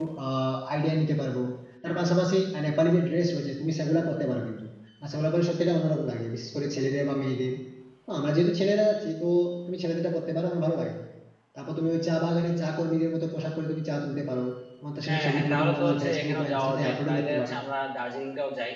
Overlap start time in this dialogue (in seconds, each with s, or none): 15.1 s